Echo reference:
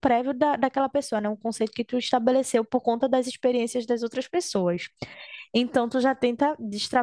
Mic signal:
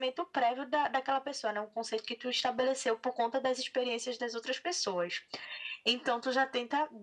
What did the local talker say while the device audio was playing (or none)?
none